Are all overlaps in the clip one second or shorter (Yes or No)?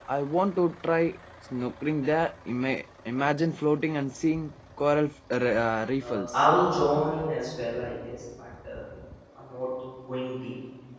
Yes